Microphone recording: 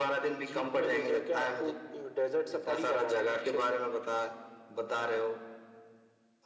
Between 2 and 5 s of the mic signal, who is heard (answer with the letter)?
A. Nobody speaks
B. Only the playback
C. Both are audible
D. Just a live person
B